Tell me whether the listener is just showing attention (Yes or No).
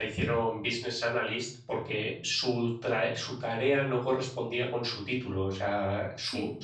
Yes